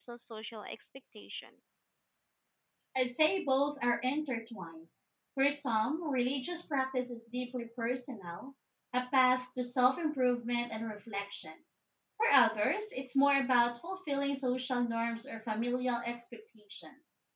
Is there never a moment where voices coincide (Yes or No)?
Yes